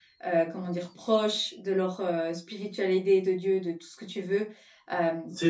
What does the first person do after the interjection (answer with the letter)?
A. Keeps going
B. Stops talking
A